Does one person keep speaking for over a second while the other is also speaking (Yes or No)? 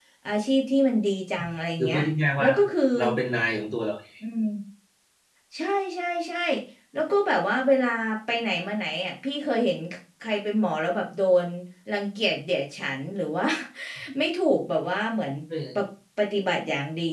No